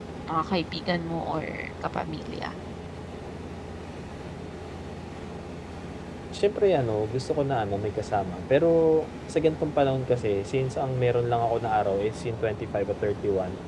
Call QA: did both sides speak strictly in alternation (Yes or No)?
Yes